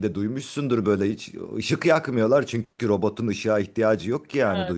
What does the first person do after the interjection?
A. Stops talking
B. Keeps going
A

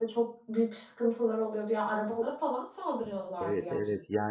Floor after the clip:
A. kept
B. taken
B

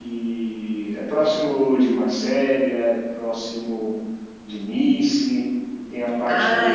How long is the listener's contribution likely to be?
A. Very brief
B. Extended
B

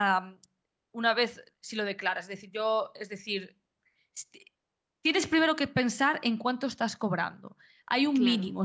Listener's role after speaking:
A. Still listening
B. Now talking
A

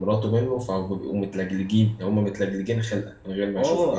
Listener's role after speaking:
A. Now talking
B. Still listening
A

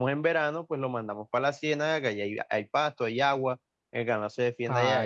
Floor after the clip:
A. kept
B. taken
B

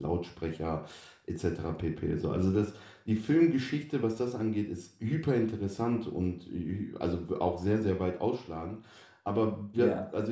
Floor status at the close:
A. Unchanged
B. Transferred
A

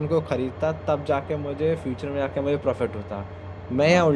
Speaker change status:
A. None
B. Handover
A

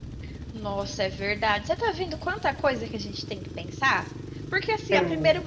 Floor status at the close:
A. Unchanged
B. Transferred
A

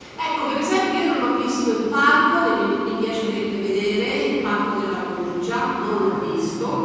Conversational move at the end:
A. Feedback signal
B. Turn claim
A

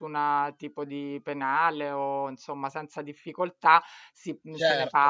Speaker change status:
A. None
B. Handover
A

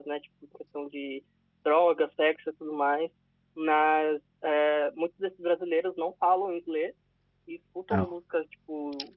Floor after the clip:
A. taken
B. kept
B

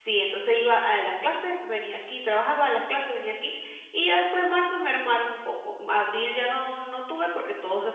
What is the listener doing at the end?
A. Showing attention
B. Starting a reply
A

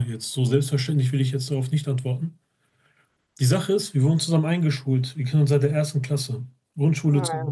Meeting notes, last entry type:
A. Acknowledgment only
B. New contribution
A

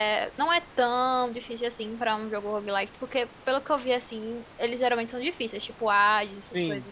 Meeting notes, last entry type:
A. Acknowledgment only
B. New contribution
B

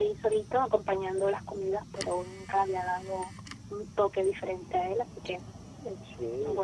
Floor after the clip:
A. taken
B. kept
A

